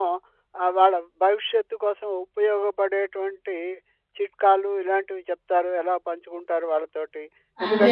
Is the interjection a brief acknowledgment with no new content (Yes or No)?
Yes